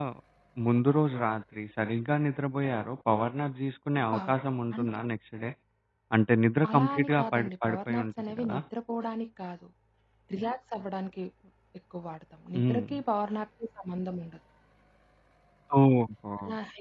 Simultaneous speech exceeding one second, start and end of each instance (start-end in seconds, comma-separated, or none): 6.7-8.6